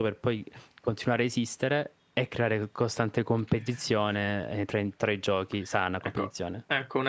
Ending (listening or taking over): taking over